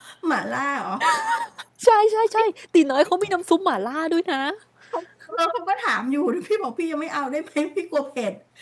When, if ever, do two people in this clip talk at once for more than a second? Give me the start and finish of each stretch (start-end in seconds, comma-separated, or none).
none